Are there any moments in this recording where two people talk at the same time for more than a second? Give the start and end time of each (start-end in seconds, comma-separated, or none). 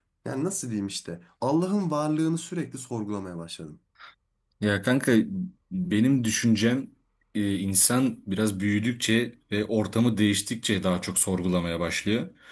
none